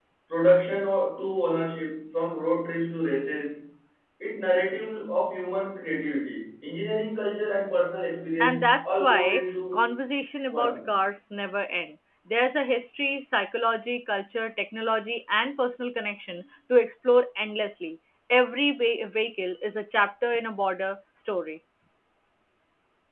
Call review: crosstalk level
present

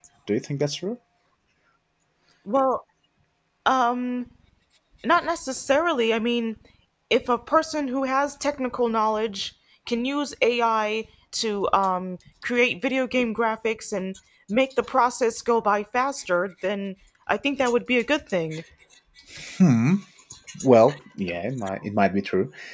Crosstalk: none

